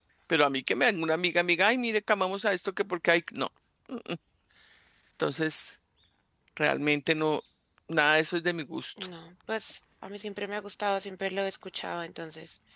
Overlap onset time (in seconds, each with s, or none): none